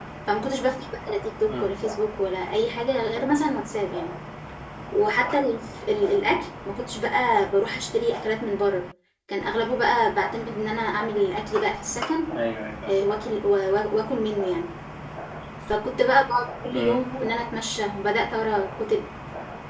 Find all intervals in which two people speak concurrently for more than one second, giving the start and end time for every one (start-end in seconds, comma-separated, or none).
none